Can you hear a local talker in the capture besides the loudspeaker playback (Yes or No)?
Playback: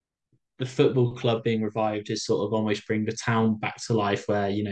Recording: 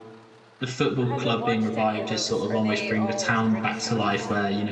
Yes